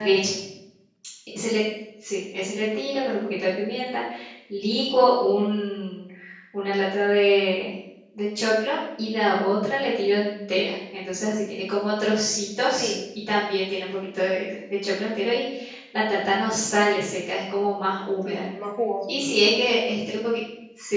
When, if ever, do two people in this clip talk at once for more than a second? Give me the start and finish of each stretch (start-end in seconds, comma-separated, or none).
none